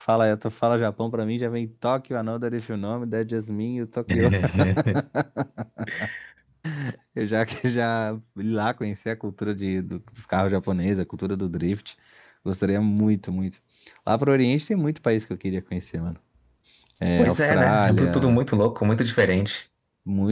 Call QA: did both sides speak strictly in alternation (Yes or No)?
No